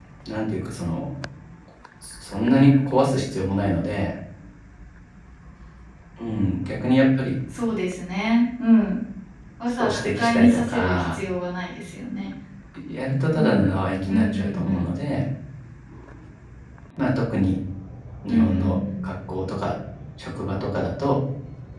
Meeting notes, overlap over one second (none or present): present